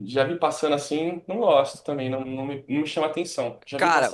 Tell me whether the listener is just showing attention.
No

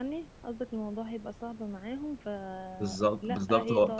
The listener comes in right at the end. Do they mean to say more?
Yes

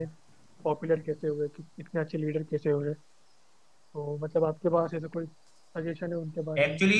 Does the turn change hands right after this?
Yes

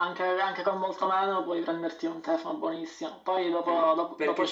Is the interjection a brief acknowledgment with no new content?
Yes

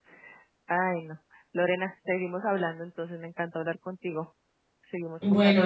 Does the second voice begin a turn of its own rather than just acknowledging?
Yes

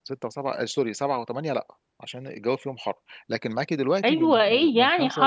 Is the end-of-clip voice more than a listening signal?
Yes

